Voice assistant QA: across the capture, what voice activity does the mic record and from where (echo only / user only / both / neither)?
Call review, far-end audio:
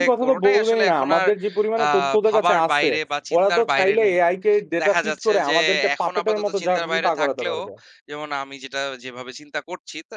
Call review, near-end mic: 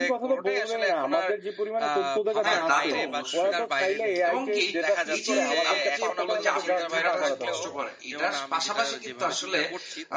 both